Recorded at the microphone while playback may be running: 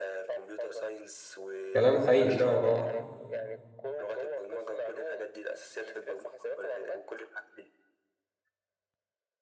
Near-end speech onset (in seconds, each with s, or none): 1.7 s